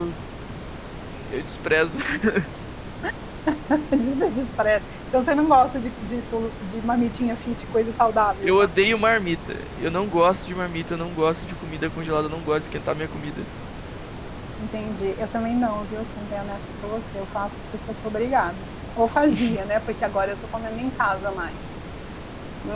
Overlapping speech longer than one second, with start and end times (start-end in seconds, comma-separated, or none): none